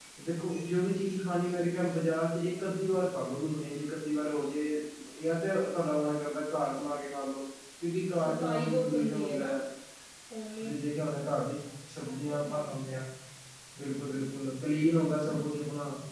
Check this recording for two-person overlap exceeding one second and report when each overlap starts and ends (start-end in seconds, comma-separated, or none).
8.2-9.5